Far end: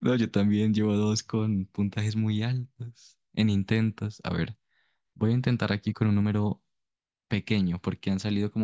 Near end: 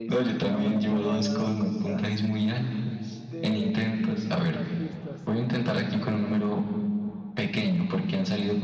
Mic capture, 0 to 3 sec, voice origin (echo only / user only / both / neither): both